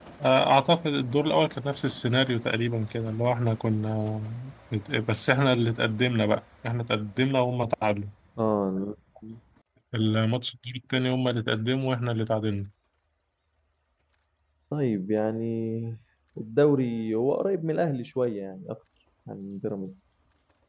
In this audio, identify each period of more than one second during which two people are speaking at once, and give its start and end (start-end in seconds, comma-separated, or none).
none